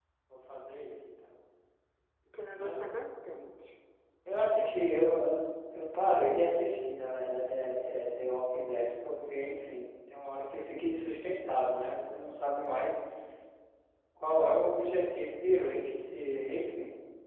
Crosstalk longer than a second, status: none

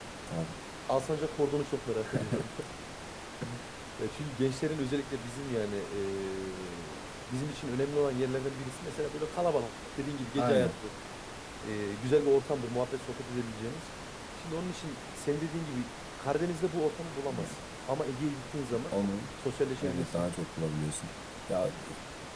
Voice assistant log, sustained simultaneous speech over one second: none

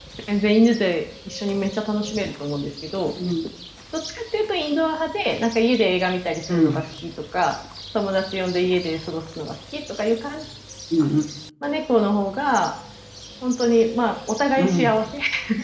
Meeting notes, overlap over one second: none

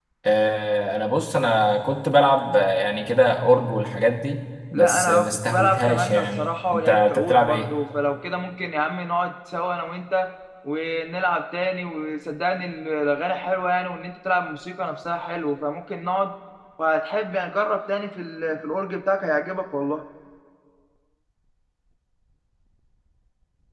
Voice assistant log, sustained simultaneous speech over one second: present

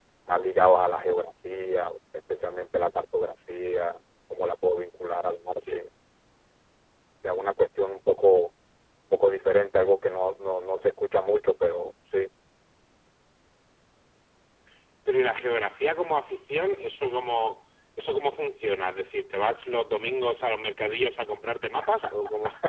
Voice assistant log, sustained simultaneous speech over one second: none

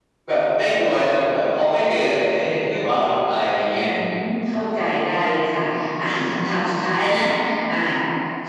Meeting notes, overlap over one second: none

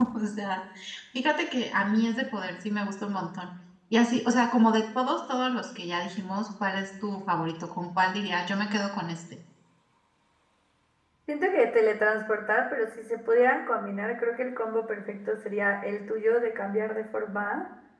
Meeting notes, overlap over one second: none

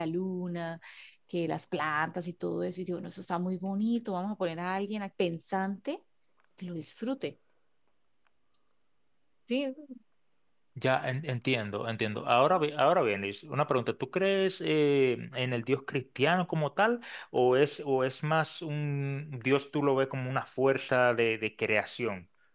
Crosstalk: none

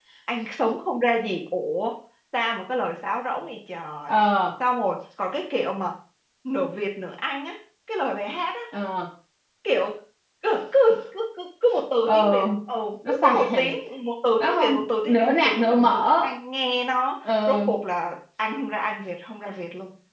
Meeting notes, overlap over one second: present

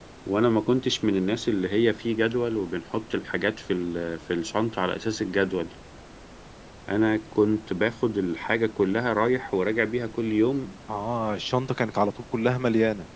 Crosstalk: none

